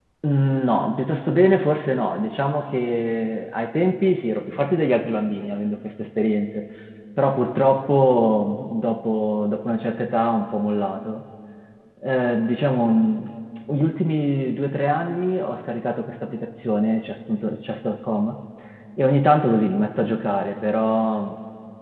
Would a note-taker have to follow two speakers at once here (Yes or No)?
No